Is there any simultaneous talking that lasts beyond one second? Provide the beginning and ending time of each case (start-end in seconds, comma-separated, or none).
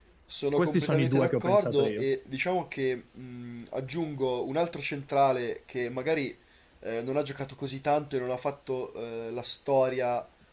0.6-2.0